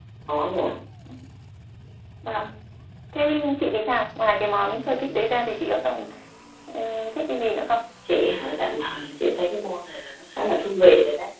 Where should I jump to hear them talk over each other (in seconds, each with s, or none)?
none